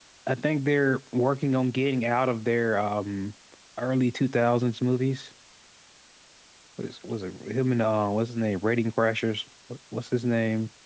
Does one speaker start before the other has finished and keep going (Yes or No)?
No